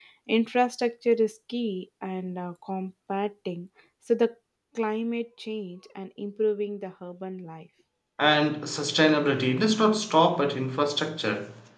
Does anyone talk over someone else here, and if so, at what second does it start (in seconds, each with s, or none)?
none